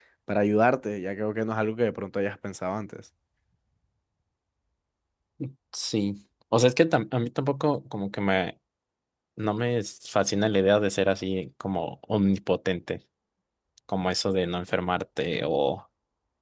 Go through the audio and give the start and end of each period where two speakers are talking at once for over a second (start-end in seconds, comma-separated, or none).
none